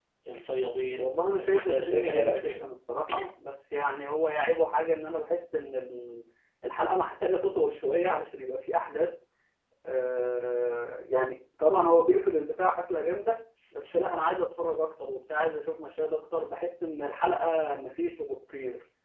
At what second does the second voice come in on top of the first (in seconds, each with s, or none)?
1.0 s